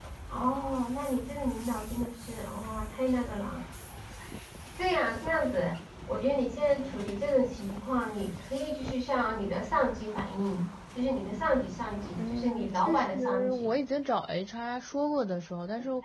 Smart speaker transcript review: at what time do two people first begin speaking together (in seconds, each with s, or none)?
12.2 s